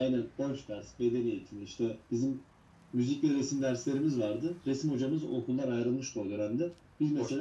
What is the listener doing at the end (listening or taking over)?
listening